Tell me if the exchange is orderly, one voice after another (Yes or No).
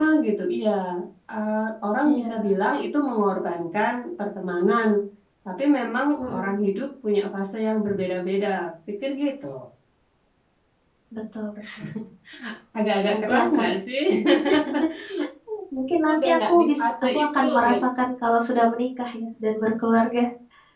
No